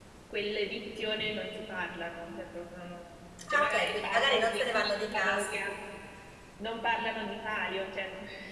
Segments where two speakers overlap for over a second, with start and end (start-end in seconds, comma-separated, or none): 3.5-5.6